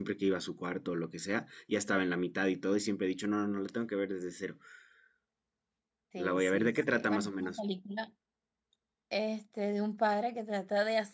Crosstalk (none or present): present